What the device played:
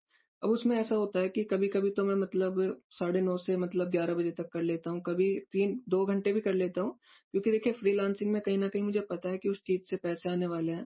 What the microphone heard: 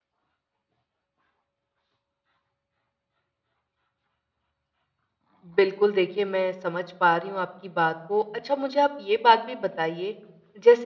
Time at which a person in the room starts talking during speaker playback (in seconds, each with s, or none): 5.5 s